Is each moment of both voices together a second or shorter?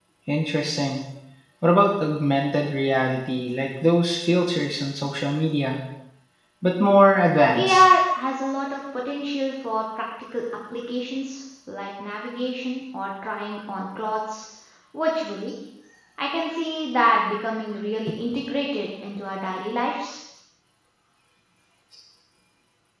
Yes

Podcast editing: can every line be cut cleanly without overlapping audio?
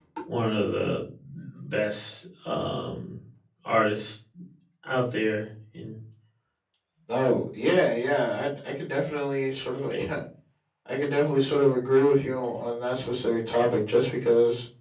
Yes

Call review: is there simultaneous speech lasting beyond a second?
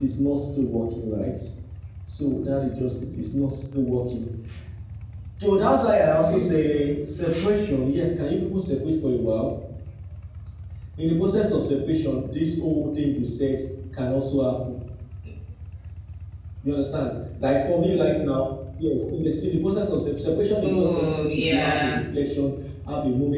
Yes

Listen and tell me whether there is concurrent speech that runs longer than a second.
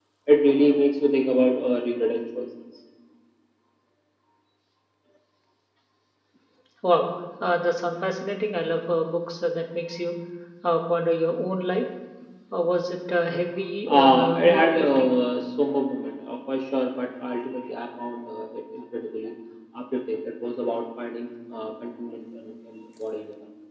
Yes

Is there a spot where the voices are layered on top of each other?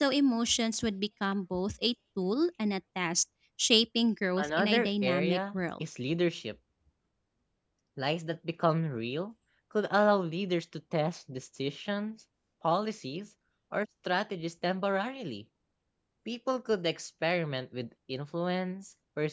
Yes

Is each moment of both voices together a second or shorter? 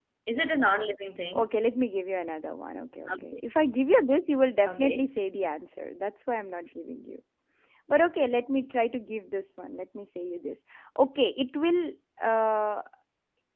Yes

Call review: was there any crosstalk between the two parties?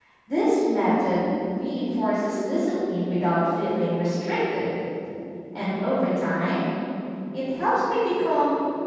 No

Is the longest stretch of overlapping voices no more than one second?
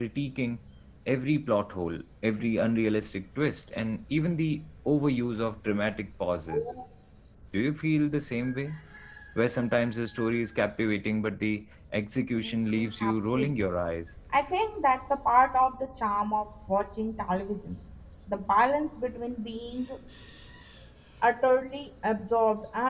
No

